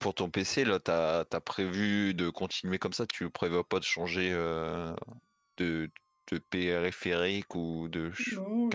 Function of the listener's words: taking over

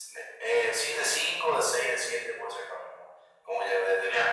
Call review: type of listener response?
listening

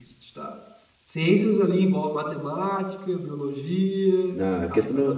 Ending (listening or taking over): taking over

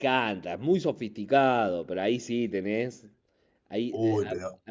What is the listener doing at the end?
listening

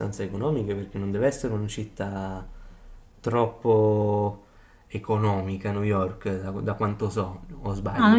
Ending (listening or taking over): taking over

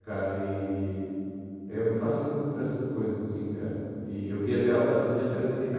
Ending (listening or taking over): listening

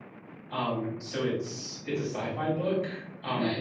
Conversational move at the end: listening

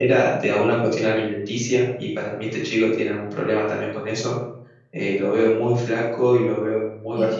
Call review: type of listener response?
taking over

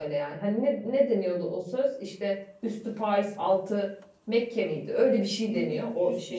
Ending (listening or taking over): taking over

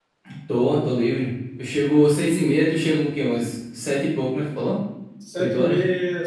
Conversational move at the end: taking over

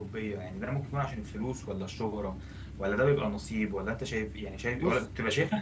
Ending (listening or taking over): listening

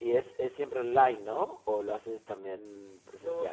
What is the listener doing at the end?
taking over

